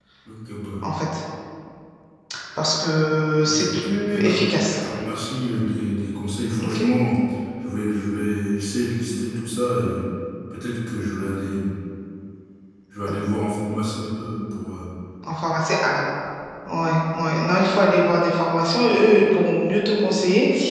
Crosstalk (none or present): present